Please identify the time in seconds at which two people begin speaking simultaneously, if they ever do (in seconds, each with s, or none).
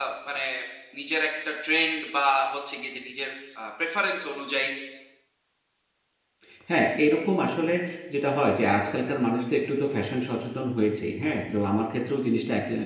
none